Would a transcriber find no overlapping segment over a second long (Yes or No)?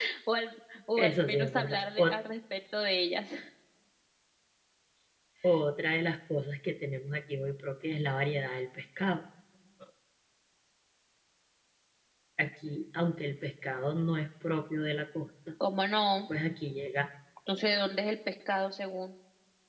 No